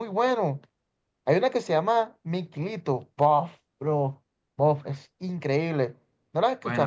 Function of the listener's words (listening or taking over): taking over